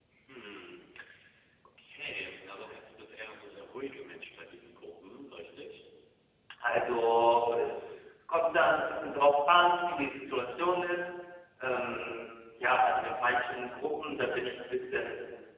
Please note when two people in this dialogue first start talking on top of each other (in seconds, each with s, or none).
none